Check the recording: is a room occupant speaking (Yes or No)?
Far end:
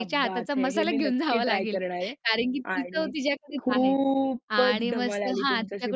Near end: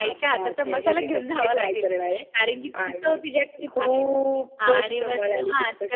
No